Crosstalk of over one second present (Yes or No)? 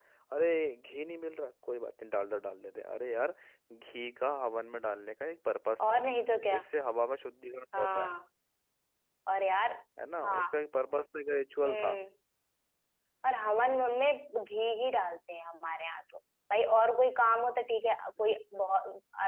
No